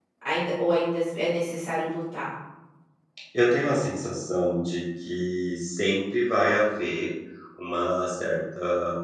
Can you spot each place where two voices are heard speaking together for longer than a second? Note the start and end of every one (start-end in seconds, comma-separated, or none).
none